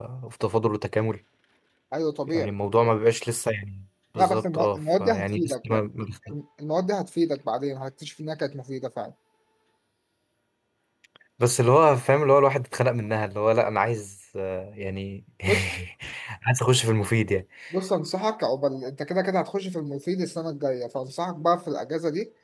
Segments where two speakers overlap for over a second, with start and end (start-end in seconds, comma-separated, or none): 4.2-5.9